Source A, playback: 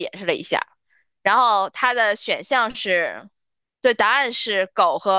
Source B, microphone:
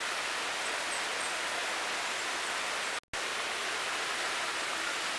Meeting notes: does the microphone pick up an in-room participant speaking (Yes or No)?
No